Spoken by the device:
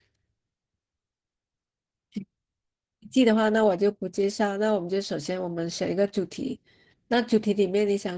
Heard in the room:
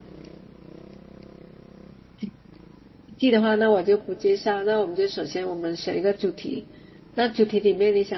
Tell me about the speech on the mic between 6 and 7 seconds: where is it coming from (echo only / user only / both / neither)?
echo only